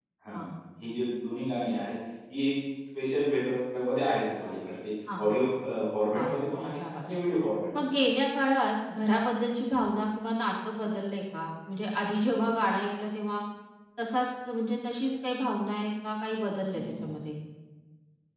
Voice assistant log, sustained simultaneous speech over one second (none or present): none